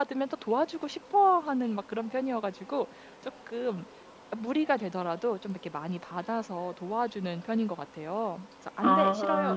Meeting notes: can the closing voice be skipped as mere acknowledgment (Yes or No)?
Yes